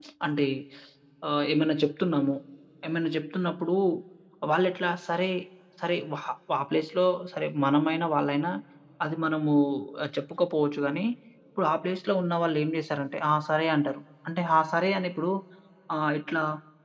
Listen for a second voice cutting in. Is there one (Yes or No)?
No